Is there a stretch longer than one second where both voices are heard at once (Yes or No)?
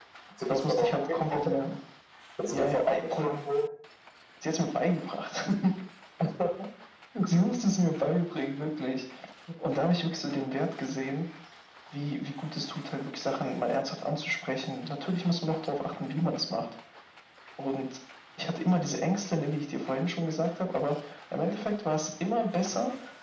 Yes